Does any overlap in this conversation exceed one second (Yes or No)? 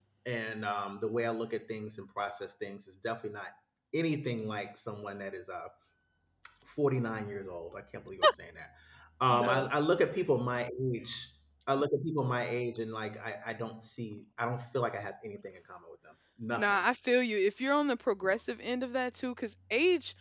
No